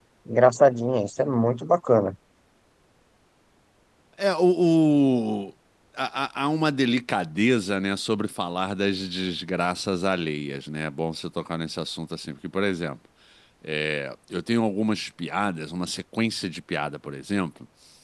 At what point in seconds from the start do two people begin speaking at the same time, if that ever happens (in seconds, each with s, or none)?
none